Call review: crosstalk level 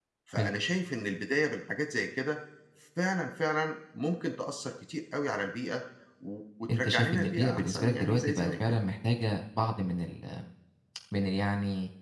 present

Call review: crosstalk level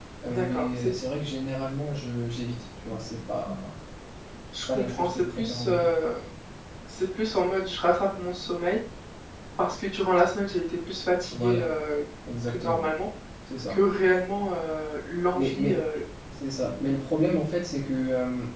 present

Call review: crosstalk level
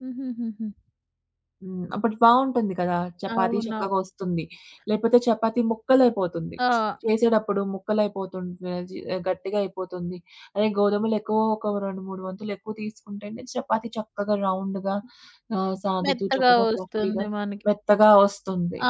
present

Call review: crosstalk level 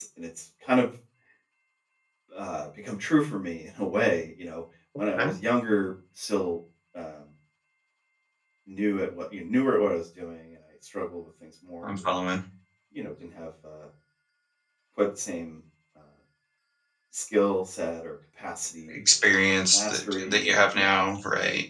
present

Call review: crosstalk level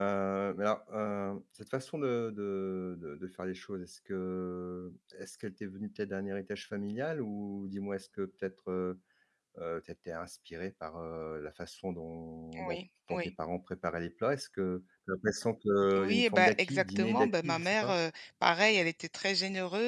present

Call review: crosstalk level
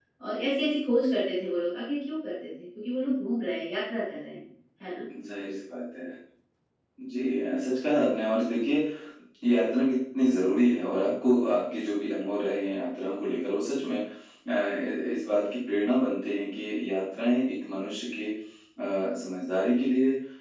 none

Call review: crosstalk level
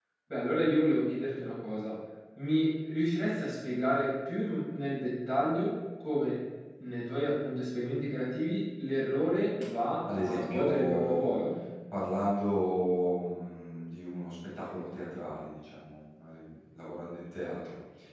present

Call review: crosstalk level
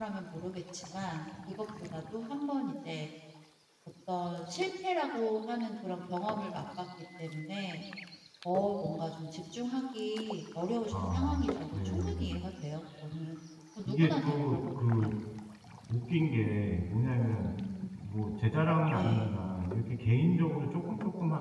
present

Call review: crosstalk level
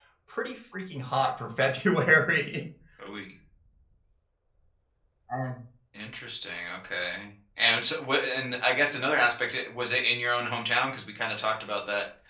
none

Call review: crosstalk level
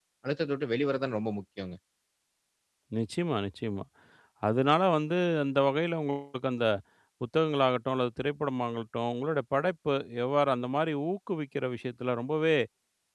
none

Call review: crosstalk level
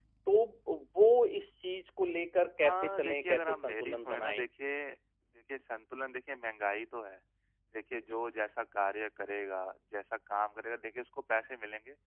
present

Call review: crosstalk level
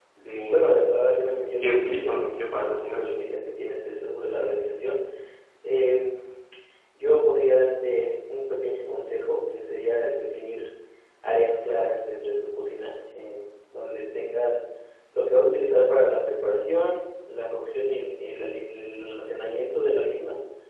present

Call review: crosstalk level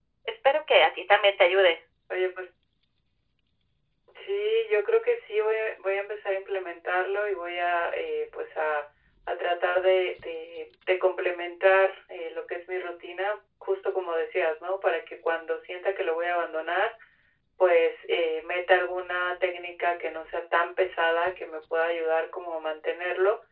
none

